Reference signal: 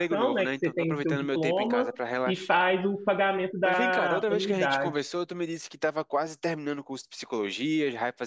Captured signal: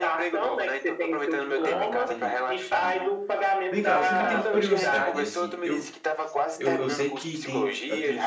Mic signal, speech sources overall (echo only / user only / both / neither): both